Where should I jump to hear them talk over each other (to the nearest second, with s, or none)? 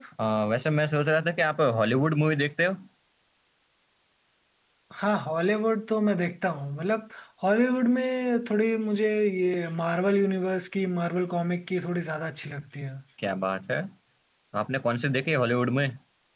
none